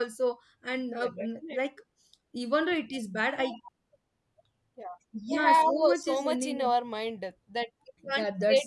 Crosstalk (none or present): present